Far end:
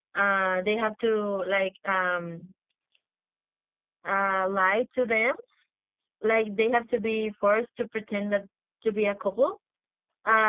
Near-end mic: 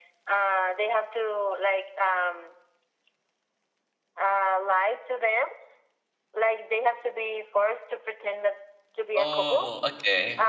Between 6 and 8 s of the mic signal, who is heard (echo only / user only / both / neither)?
echo only